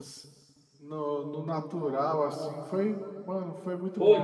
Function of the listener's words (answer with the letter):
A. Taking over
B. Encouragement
A